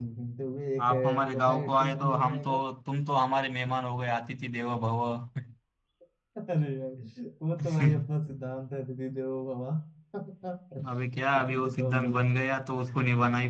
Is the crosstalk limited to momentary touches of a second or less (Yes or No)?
No